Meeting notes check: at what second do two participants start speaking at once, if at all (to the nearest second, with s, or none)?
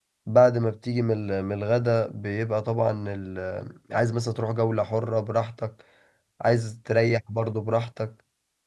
none